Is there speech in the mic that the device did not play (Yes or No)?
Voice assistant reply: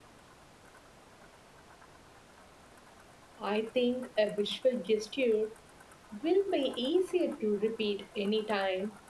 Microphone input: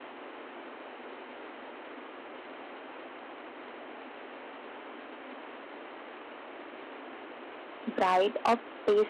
Yes